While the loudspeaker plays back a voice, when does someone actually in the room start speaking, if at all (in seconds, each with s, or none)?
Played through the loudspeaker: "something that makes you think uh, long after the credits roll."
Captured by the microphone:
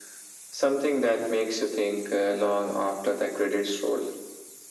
none